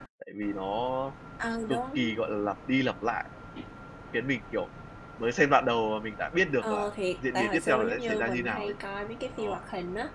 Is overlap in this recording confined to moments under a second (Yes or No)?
No